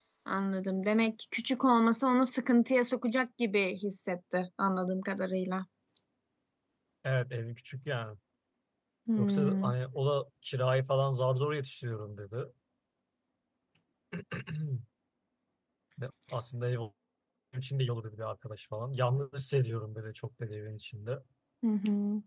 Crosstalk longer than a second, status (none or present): none